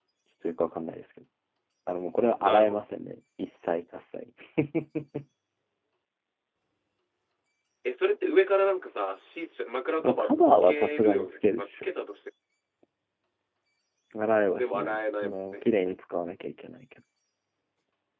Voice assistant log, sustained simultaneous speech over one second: present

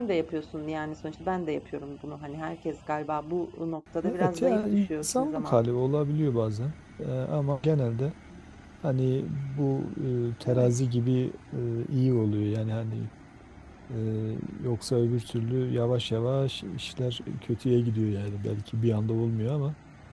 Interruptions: present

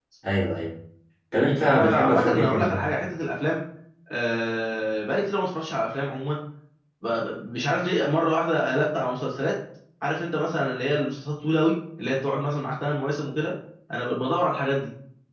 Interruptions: present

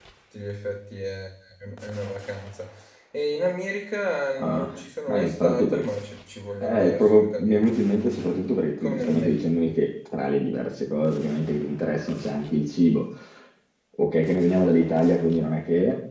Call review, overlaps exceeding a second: present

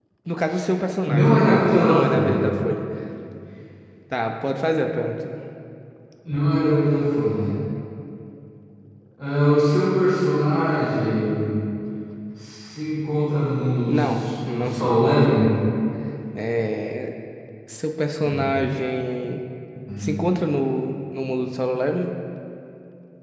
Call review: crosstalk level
present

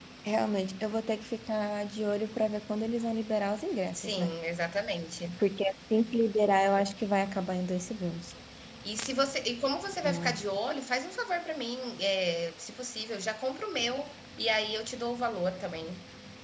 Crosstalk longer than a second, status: none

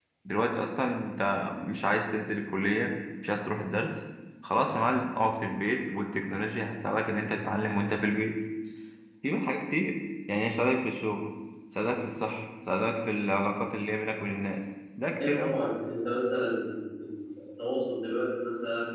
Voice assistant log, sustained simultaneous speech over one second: none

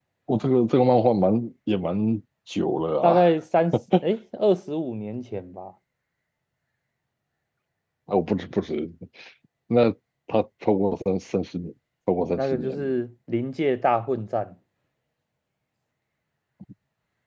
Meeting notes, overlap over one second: none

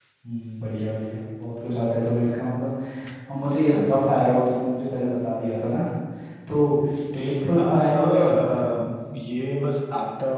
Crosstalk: present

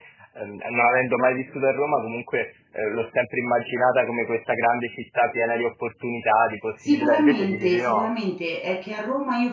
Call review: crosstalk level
present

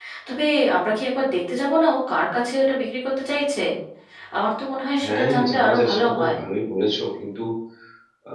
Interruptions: present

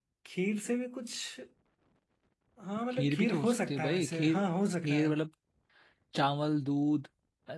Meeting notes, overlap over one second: present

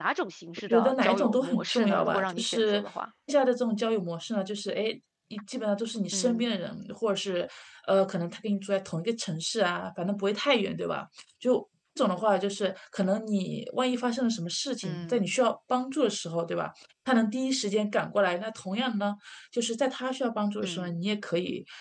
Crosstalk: present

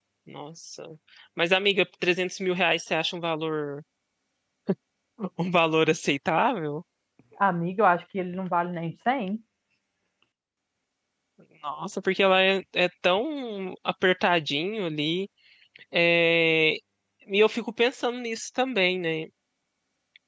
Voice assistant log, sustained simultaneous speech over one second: none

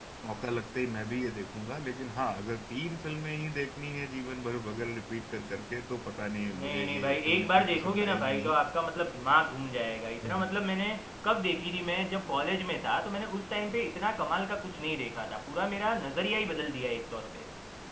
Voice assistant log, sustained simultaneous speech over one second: present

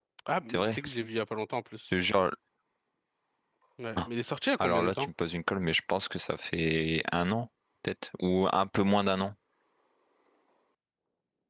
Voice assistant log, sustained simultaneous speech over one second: none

